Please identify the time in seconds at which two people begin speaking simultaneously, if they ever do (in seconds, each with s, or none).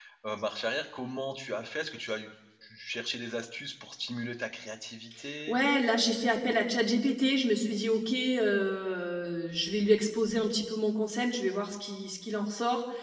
none